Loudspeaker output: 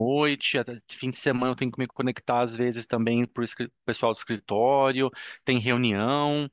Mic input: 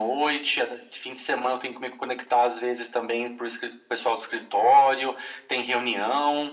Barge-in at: none

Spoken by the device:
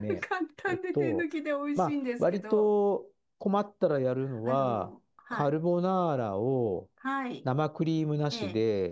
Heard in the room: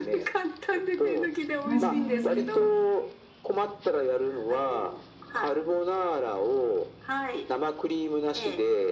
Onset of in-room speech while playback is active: 2 s

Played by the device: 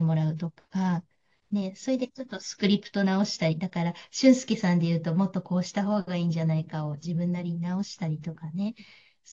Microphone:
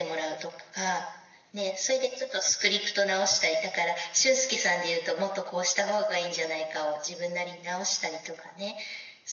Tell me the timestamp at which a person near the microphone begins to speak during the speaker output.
none

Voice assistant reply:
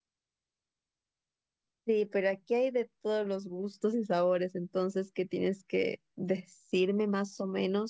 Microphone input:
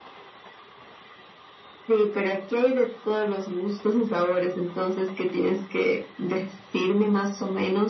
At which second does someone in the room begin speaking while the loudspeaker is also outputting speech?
none

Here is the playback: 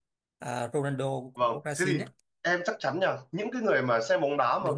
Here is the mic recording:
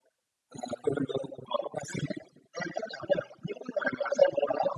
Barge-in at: none

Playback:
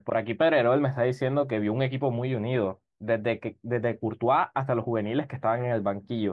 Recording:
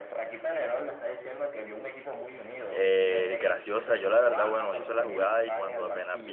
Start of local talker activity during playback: 3 s

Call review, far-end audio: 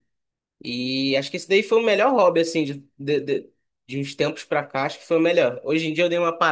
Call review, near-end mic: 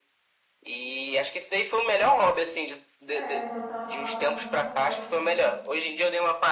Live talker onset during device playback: 3 s

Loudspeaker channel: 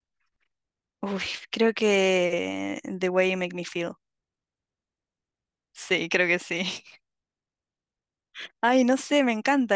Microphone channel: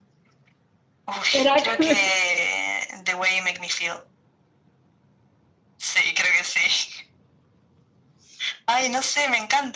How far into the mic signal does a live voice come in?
1 s

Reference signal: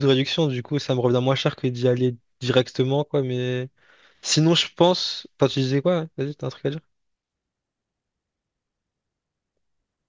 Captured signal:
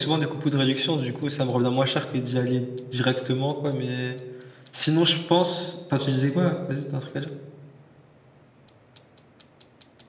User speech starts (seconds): none

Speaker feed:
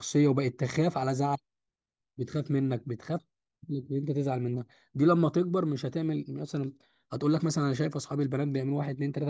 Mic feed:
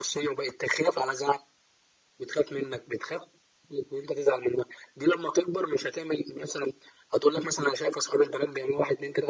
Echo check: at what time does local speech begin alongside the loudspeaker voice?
none

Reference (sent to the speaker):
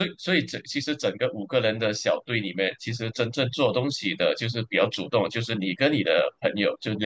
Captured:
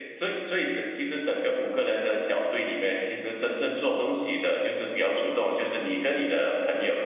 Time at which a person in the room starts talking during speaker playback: none

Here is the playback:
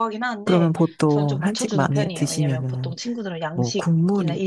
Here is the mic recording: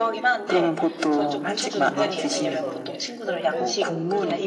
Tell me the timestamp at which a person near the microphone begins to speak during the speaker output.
2 s

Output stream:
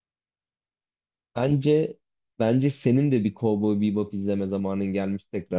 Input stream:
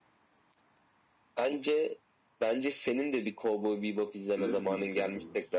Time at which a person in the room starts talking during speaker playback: 4 s

